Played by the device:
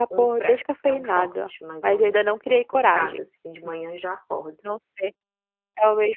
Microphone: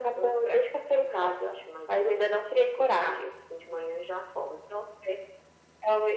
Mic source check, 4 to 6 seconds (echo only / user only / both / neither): echo only